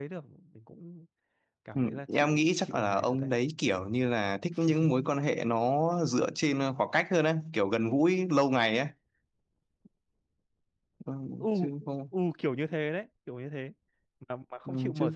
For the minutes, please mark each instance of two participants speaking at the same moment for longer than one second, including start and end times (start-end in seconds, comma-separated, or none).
1.8-3.3